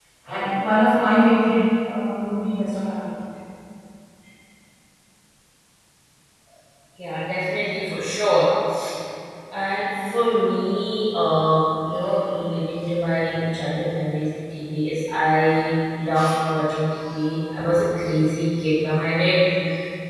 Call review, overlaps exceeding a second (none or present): none